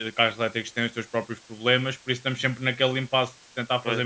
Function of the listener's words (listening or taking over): listening